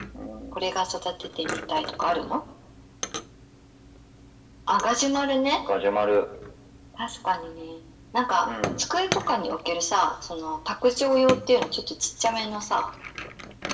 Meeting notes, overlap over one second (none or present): none